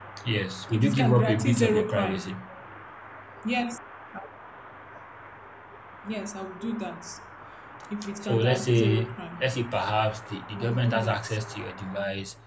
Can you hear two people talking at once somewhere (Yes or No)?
Yes